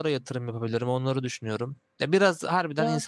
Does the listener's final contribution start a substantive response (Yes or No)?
No